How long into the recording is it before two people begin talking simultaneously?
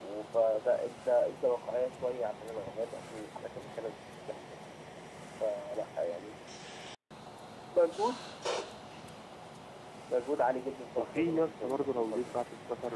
11.0 s

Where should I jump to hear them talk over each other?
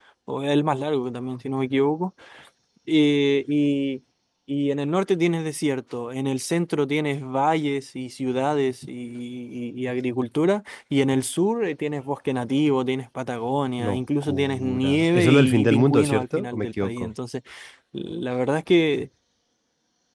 13.8 s

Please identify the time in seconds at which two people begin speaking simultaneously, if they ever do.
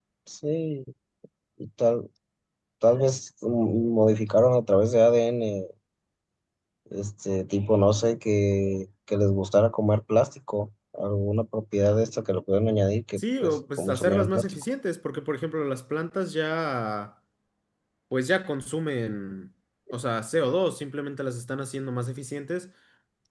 13.2 s

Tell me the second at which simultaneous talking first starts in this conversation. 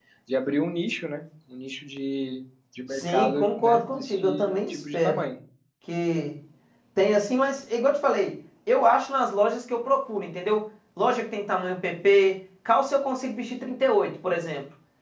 2.9 s

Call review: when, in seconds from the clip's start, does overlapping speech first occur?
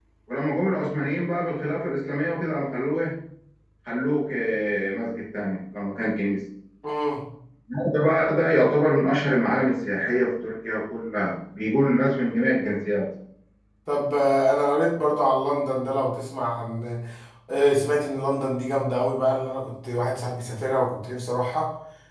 none

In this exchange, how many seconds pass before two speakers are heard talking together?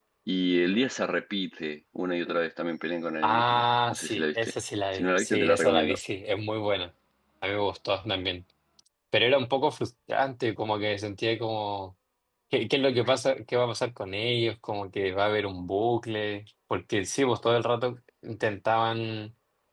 3.2 s

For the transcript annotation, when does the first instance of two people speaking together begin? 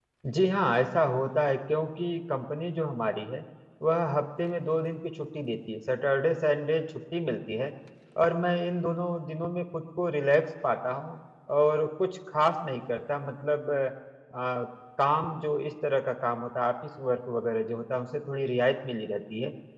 none

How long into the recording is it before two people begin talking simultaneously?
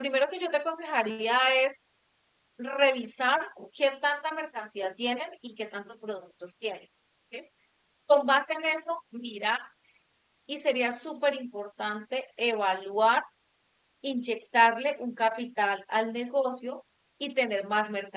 none

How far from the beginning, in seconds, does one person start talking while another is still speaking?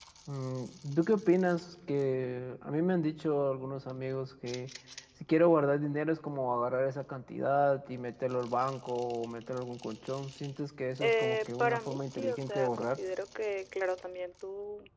11.0 s

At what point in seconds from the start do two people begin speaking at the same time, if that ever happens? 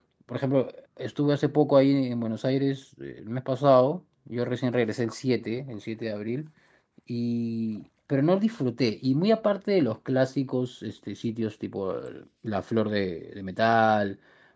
none

